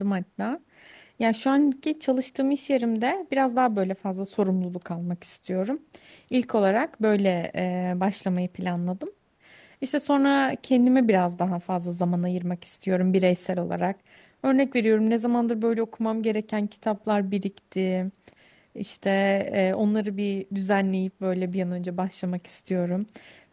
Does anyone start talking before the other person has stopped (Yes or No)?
No